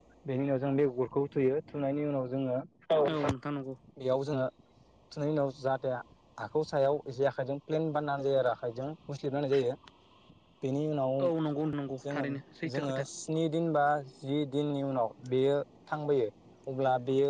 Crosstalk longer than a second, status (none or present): none